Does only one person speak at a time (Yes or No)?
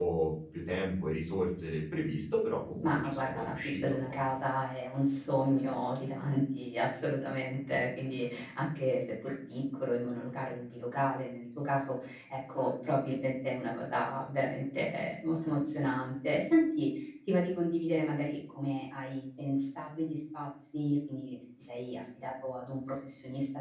No